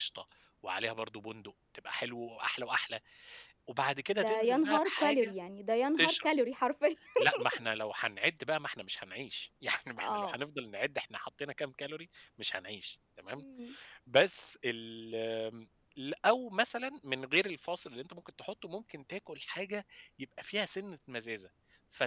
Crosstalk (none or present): present